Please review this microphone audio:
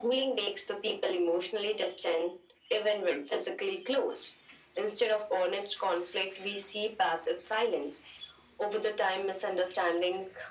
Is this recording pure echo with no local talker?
Yes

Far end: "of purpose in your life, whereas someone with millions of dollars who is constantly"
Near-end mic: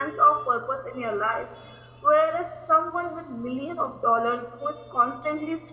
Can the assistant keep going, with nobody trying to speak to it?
Yes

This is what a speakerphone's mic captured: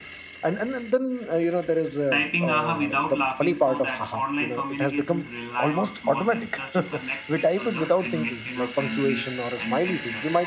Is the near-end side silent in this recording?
No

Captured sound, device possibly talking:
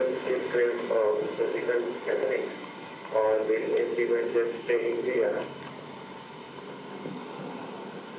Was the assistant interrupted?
No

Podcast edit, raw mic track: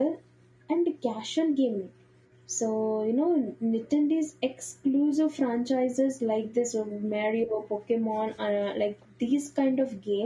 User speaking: Yes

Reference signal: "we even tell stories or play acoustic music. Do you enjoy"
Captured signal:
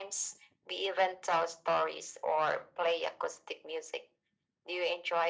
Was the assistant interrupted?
No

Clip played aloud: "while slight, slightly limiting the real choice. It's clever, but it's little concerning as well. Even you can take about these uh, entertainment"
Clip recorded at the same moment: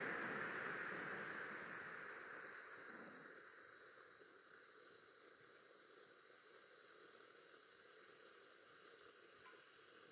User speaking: No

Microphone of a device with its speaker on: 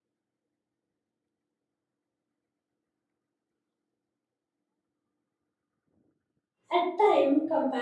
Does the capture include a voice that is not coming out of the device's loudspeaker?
Yes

